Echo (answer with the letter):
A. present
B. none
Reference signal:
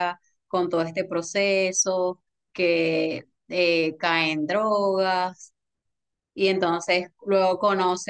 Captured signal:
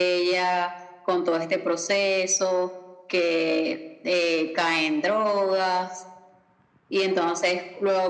A